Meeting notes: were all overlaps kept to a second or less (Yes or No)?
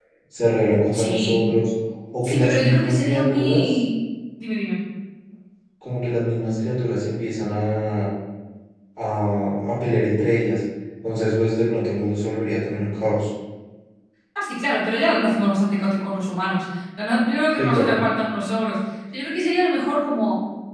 No